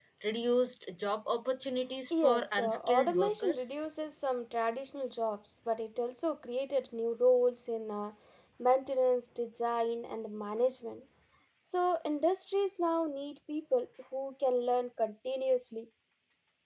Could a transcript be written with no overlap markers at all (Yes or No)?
No